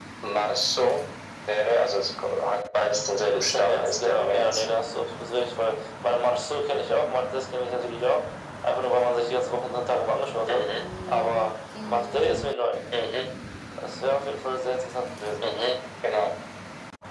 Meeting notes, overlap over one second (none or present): present